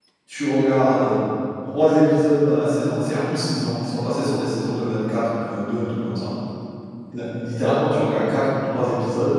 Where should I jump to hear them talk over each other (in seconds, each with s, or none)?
none